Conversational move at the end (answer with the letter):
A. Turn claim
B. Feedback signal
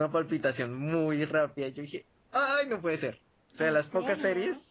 B